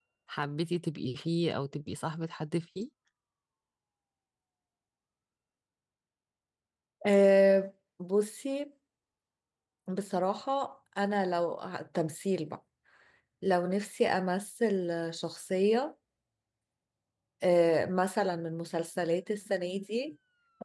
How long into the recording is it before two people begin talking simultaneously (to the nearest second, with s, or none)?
none